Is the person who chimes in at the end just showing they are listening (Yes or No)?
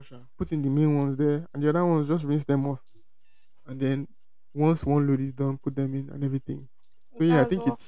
Yes